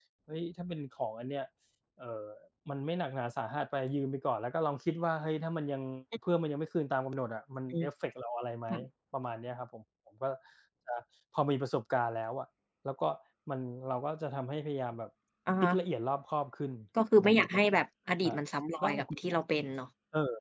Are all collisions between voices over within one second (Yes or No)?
Yes